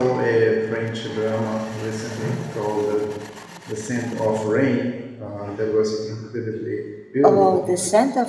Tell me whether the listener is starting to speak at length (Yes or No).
Yes